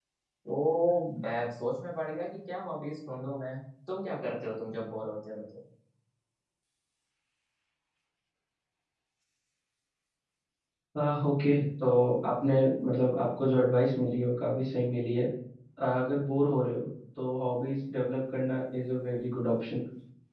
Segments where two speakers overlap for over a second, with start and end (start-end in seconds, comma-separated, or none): none